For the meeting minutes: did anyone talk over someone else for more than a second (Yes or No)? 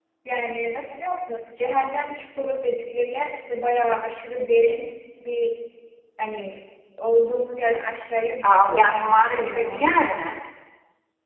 Yes